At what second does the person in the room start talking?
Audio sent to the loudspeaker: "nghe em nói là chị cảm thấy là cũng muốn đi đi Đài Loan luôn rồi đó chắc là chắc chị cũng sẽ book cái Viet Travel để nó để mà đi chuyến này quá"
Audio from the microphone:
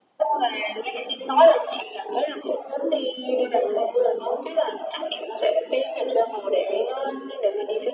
none

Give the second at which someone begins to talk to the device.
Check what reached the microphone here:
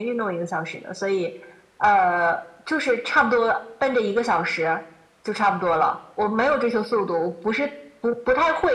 none

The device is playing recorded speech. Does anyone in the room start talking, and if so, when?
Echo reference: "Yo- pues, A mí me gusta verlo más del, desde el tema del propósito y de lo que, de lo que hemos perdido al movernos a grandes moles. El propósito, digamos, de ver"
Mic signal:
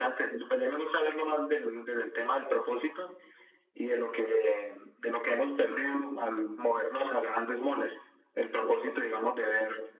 none

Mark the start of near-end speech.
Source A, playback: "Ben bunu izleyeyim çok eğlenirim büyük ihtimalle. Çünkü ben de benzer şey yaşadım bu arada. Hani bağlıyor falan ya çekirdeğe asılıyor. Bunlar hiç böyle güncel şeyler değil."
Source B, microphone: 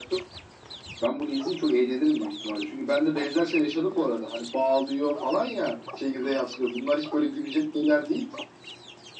none

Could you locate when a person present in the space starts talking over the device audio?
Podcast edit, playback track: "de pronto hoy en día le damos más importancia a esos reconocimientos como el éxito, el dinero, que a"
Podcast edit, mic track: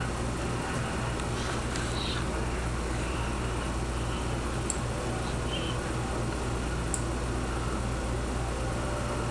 none

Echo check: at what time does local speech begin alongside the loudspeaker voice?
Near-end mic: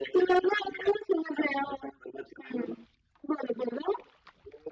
none

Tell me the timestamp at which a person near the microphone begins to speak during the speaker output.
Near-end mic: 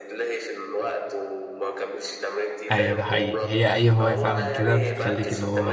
3 s

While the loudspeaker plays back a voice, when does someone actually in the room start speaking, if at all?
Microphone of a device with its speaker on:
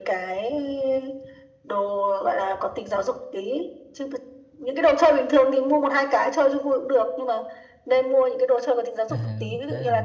9 s

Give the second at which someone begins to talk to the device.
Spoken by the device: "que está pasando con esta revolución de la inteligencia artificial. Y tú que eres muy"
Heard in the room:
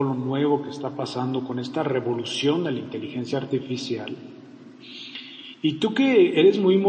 none

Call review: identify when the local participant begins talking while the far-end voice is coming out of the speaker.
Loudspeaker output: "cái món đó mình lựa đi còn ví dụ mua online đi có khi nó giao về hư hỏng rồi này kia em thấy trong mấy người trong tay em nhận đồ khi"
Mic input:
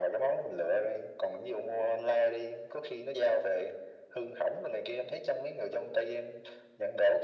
none

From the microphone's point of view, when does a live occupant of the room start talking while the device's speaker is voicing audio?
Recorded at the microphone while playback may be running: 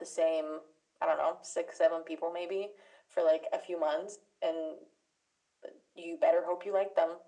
none

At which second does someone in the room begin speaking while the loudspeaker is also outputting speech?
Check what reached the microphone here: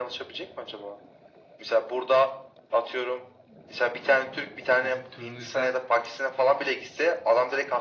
5 s

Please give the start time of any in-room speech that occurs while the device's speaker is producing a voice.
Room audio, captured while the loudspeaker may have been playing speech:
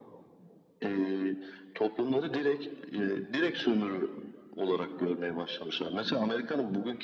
none

